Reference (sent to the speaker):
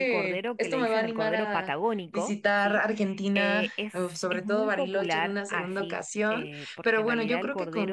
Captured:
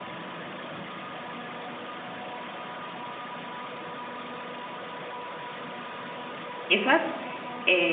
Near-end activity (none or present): present